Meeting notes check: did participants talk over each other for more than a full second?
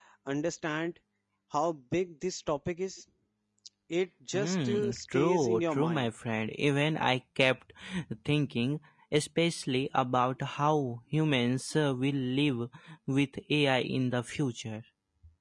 Yes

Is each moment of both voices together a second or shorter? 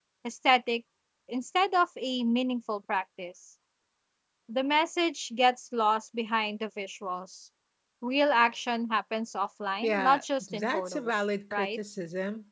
No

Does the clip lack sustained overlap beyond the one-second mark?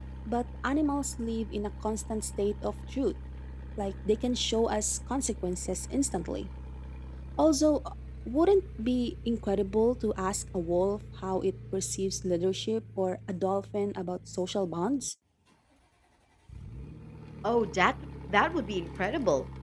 Yes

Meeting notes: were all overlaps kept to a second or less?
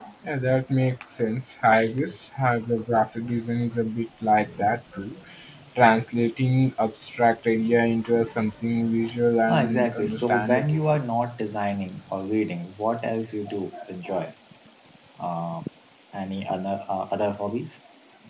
No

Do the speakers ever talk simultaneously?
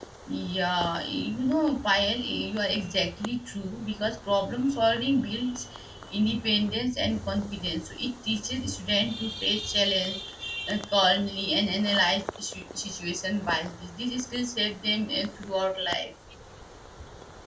No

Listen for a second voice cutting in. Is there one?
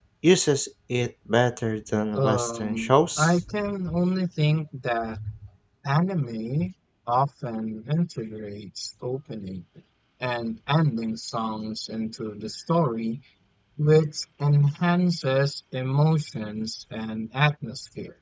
Yes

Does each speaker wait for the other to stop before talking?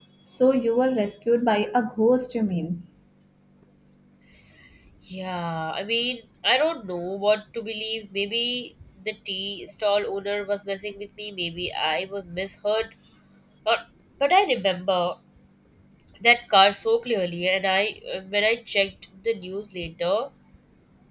Yes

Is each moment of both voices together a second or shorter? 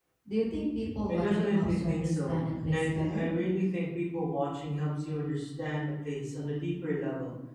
No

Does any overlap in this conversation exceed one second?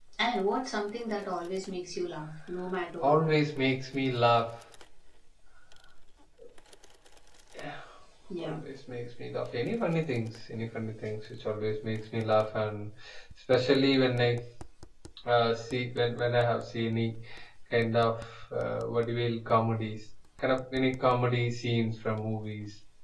No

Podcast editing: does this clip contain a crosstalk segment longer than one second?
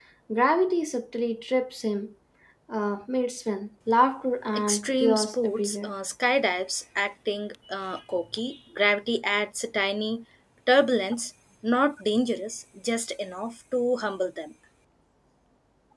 Yes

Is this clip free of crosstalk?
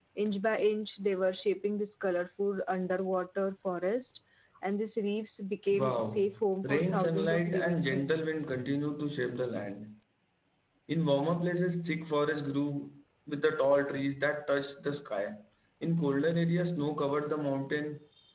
No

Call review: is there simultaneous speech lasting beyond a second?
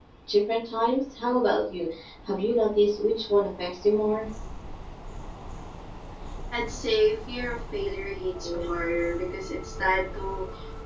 No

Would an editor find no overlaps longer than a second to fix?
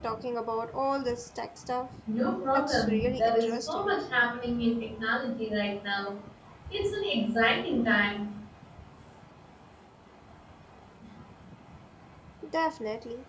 No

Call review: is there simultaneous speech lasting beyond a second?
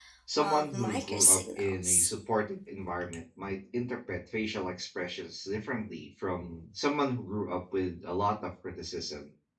Yes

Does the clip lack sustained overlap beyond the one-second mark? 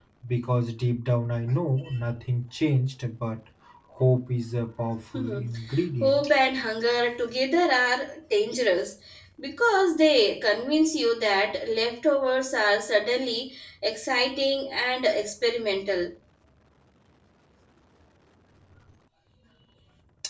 Yes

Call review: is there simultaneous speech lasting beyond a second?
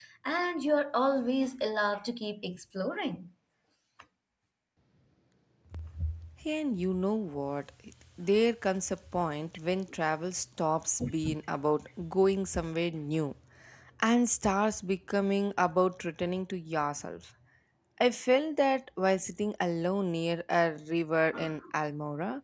No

